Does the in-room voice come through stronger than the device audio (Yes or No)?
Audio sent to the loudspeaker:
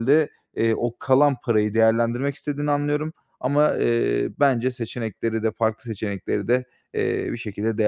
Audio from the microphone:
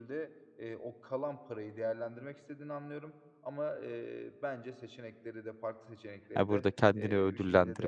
Yes